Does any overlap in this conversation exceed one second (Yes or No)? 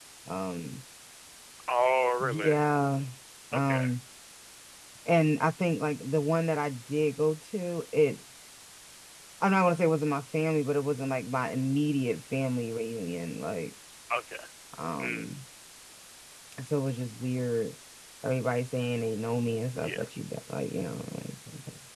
No